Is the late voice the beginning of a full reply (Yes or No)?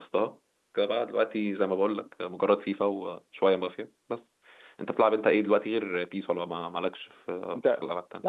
Yes